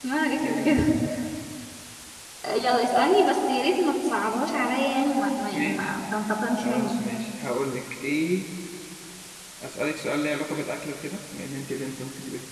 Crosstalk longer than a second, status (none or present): none